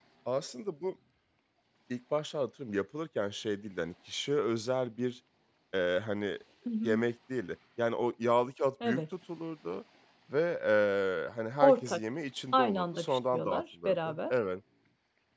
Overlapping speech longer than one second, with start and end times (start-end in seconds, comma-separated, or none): 12.5-14.3